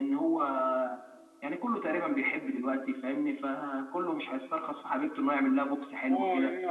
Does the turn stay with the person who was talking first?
No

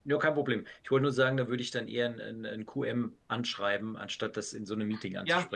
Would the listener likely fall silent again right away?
No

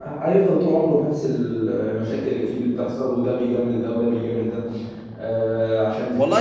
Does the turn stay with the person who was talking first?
No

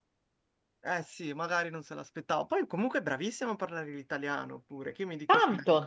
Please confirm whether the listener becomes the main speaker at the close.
Yes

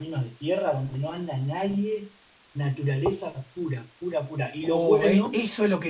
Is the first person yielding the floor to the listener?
Yes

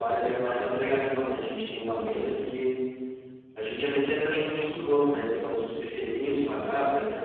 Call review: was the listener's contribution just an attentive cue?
Yes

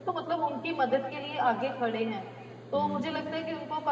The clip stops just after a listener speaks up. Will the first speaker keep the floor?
Yes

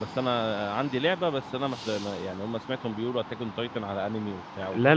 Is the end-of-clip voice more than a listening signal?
Yes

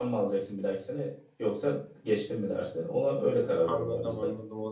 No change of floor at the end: No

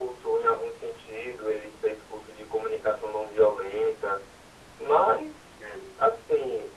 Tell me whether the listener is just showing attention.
Yes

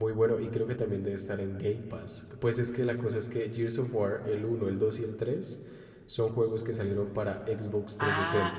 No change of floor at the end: No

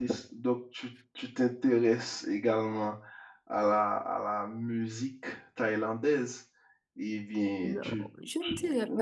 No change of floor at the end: No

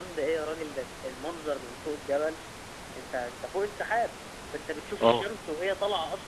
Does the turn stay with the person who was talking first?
Yes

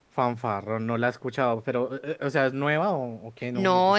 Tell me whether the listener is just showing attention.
No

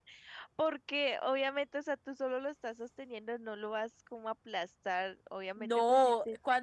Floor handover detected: Yes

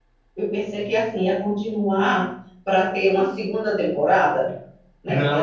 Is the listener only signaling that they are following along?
Yes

